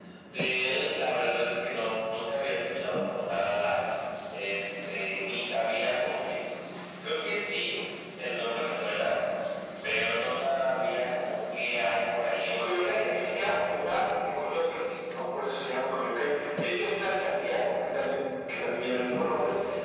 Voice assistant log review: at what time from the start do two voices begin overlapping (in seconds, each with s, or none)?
12.4 s